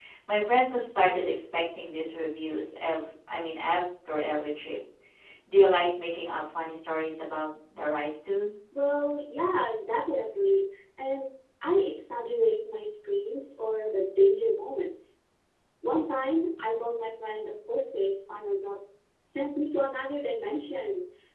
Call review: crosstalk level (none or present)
none